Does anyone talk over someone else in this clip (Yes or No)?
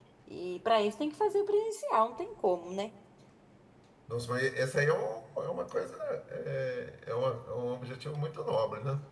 No